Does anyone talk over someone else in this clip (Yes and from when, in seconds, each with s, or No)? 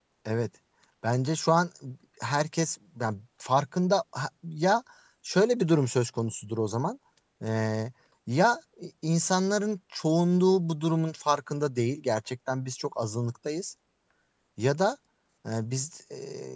No